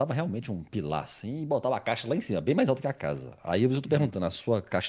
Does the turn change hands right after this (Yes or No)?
No